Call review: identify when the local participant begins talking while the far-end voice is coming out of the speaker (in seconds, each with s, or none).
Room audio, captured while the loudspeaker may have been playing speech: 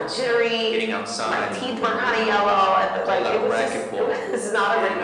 none